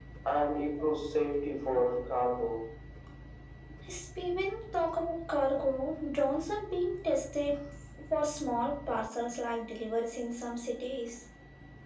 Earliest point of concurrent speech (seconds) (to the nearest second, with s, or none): none